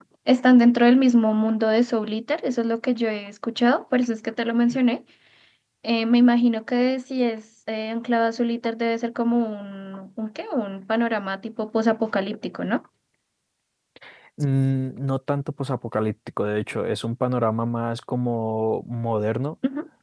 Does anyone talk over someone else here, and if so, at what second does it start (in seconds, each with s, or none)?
none